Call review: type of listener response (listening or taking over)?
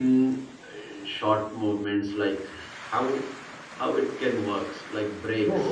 taking over